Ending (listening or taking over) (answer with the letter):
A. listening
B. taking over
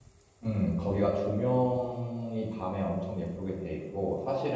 A